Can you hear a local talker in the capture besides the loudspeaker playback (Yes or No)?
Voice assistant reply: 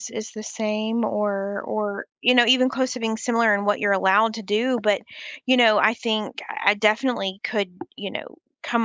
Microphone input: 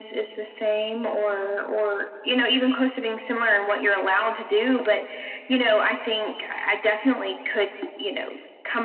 No